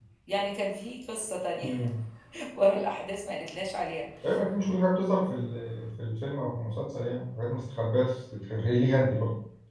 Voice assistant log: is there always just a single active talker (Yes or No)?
Yes